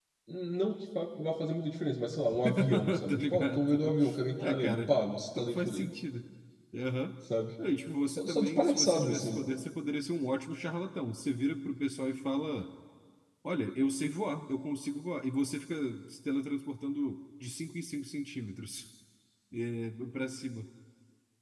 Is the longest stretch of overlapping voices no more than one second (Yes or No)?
No